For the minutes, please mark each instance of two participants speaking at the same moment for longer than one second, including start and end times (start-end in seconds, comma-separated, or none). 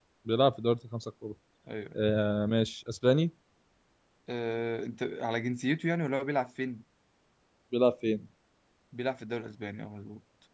none